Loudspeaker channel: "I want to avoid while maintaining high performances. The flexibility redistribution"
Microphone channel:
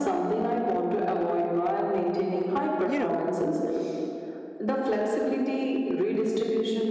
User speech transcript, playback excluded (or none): You know,